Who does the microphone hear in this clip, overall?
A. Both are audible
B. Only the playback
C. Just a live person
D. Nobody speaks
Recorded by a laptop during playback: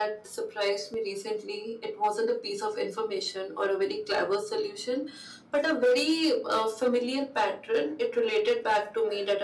B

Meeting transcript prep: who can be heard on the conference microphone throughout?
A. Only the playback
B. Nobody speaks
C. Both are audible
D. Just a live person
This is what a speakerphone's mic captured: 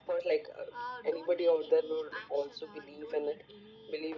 C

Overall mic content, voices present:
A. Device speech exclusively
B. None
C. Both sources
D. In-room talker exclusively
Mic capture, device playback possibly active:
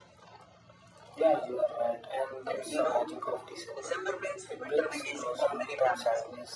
A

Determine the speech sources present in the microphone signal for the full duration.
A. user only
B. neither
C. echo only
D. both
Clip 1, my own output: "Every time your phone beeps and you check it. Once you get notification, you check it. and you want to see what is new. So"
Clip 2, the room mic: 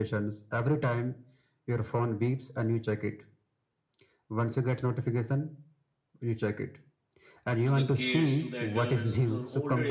D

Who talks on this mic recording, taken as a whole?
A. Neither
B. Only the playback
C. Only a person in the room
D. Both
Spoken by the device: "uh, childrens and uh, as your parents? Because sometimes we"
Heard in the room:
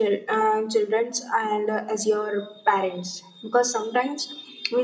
B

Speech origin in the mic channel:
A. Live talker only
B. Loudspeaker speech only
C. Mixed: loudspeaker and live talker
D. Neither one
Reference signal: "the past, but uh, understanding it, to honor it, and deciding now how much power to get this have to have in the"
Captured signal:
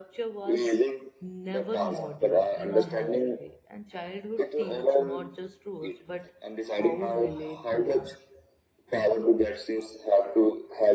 C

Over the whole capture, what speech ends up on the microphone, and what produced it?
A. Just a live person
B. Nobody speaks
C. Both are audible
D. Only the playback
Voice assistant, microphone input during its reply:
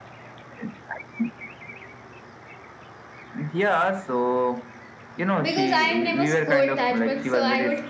C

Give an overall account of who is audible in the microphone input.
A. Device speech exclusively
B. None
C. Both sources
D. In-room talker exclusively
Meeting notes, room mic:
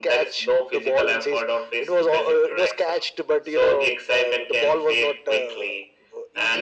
A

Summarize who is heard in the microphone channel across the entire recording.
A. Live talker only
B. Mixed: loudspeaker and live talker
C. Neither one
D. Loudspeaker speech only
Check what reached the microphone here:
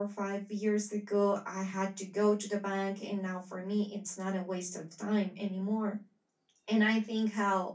D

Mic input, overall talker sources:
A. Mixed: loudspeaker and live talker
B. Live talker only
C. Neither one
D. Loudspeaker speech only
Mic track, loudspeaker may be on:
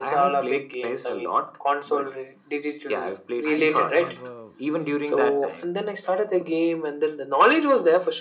A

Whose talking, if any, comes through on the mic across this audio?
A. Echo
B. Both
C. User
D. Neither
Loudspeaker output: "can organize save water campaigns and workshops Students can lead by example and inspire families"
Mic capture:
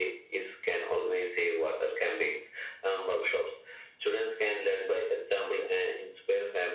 A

